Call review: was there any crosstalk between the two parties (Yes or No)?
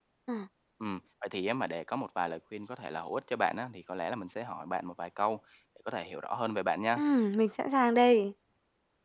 No